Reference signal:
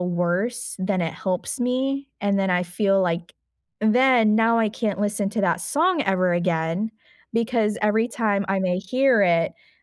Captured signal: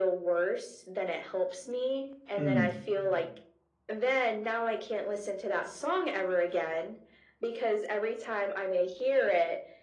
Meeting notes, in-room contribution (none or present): present